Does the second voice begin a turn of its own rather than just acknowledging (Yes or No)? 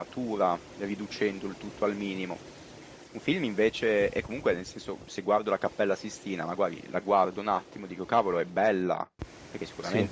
No